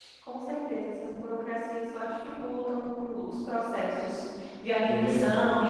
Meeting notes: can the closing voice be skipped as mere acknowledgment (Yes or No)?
Yes